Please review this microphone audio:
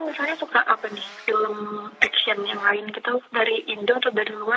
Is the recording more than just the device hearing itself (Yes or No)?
No